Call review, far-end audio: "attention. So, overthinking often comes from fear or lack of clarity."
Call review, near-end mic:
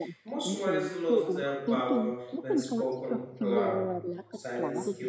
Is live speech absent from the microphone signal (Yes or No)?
No